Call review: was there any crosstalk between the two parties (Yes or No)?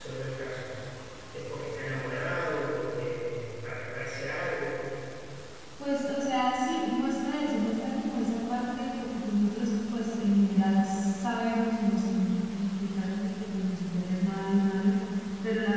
No